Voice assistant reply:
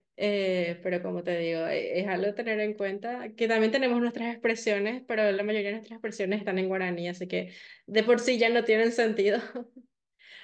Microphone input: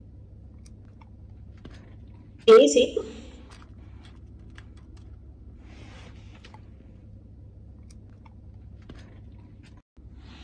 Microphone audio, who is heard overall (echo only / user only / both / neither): user only